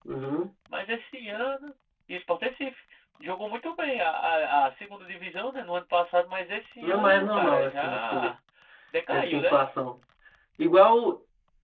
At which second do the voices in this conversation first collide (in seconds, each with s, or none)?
6.8 s